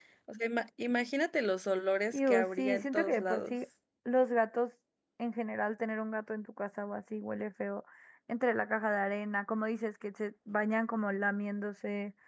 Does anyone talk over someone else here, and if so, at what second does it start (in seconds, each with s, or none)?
2.1 s